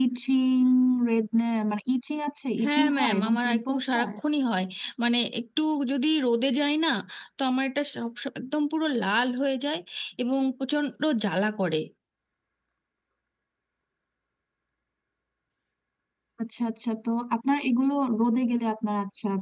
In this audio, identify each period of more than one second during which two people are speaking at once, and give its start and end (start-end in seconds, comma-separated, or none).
2.6-4.1